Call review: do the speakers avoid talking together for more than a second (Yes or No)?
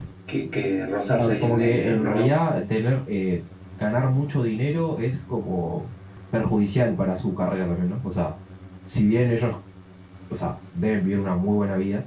No